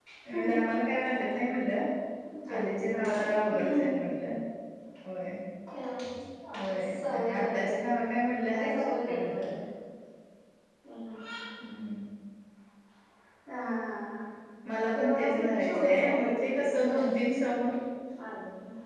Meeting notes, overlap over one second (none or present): present